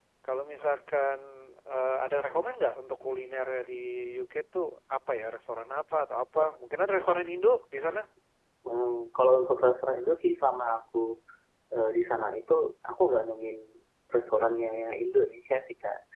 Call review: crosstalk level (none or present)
none